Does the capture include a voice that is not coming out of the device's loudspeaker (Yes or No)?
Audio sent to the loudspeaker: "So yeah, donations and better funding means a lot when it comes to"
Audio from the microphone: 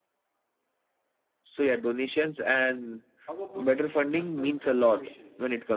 Yes